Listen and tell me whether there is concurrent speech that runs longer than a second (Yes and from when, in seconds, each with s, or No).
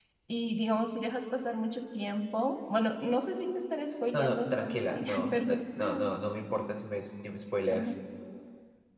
Yes, from 4.1 s